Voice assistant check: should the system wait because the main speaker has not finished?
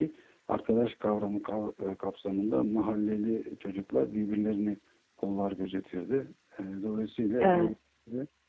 Yes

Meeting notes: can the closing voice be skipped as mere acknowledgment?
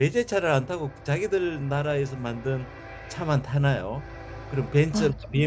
Yes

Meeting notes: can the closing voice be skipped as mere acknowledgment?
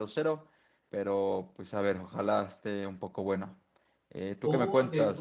No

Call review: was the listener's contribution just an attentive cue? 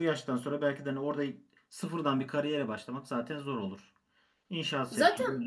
Yes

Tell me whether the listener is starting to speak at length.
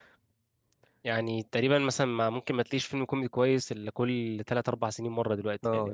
Yes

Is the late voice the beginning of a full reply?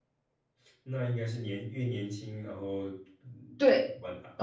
Yes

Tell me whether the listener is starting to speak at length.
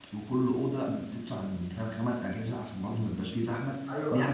Yes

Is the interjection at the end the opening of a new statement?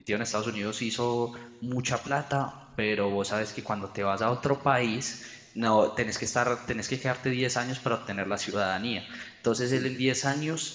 No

